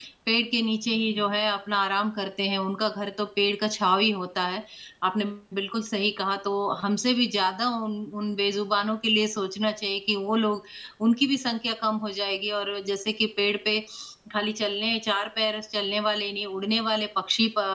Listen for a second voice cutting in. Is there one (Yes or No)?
No